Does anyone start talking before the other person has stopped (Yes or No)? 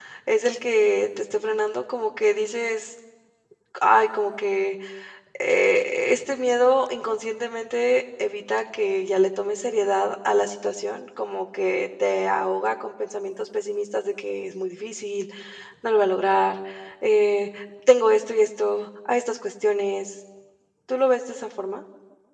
No